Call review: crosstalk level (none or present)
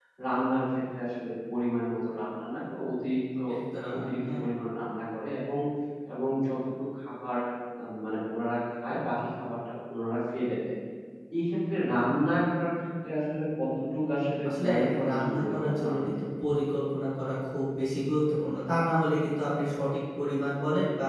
present